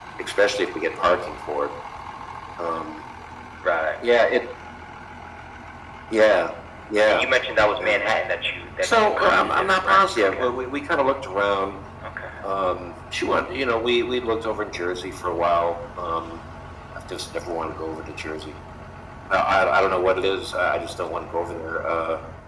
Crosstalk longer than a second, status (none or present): present